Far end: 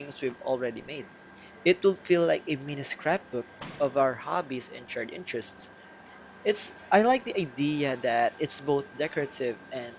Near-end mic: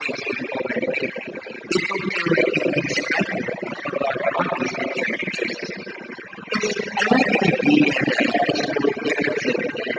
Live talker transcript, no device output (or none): none